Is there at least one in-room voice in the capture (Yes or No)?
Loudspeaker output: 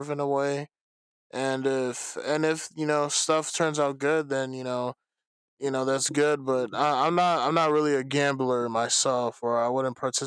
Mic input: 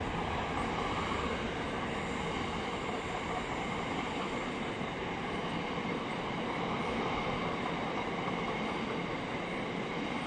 No